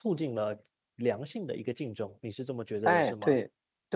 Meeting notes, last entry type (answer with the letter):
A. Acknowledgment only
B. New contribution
B